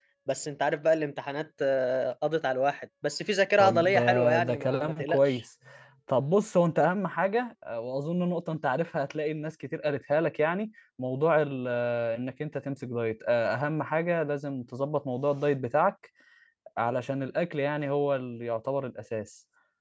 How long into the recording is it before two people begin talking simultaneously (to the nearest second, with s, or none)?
4 s